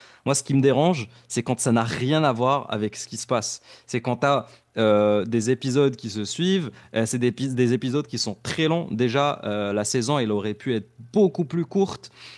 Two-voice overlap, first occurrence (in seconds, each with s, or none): none